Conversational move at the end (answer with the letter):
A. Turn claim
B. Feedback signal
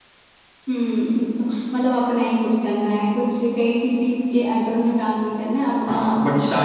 A